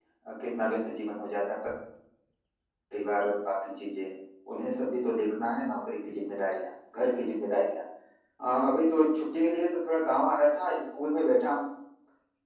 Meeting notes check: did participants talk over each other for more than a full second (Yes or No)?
No